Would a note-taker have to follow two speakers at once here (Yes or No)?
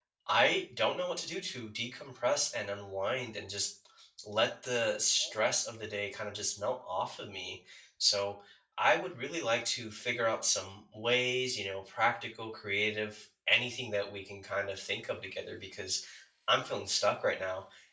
No